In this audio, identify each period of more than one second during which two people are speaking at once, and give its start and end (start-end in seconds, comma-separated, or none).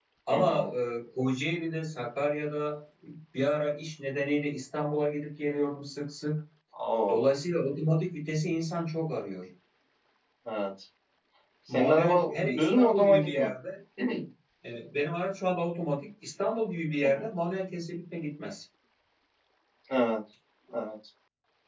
11.7-13.5